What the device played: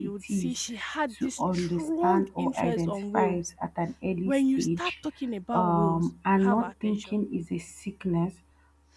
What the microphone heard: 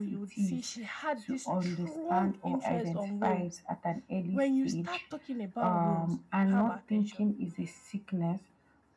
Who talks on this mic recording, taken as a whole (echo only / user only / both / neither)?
echo only